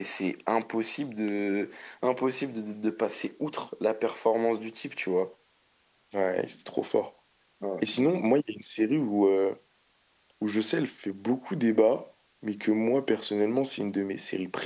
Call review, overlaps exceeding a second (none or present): none